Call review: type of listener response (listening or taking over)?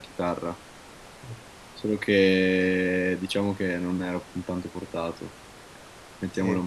listening